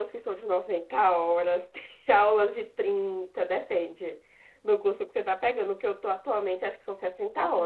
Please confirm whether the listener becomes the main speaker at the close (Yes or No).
Yes